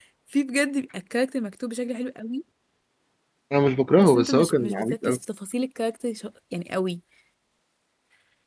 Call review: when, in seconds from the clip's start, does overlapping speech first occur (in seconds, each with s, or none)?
4.0 s